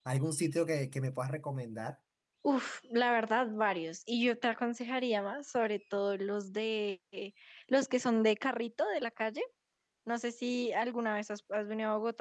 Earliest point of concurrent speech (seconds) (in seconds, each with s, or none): none